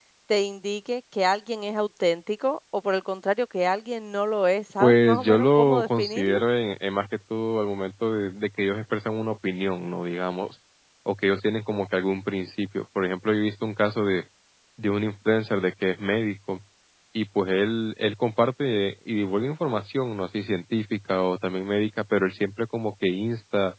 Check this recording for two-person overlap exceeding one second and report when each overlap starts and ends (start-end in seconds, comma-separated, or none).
4.8-6.4